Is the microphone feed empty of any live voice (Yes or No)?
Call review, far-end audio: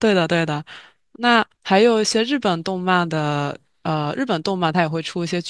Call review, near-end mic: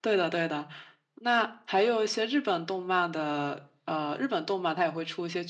Yes